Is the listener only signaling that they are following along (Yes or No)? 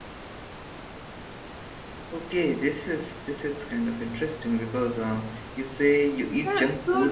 No